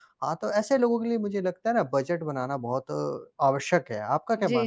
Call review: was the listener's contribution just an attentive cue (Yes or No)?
No